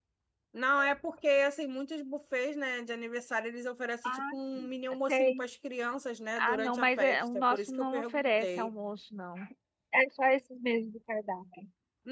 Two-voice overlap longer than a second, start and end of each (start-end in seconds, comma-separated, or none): 6.4-8.7